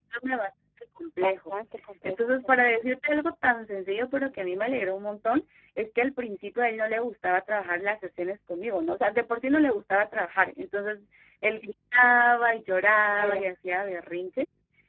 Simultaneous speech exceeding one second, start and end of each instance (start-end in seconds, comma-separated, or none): none